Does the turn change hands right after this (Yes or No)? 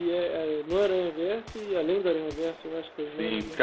Yes